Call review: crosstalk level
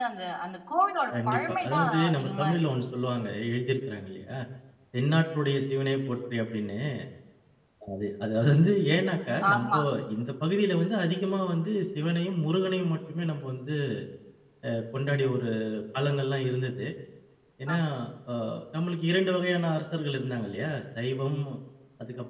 present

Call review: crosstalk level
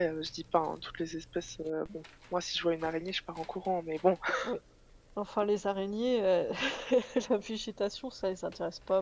none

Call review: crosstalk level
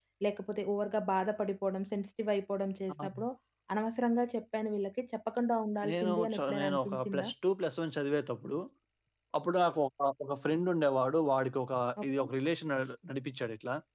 present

